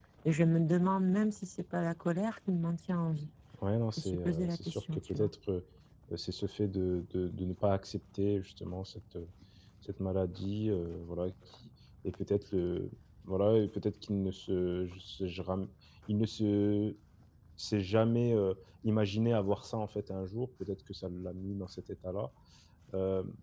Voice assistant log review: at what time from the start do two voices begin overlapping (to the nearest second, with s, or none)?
4 s